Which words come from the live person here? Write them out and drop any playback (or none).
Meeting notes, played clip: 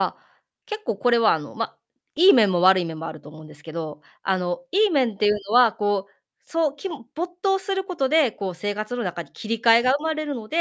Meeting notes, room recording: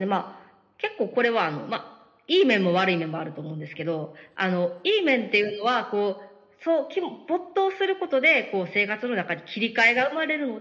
none